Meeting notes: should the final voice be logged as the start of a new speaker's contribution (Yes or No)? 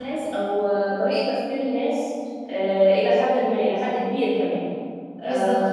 Yes